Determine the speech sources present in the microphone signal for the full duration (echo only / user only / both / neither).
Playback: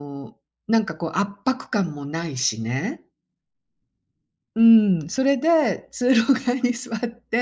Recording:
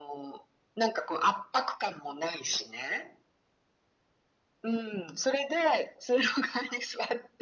echo only